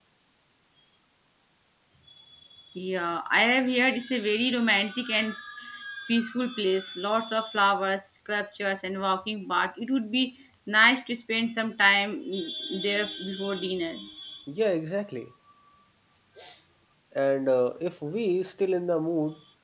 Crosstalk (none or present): none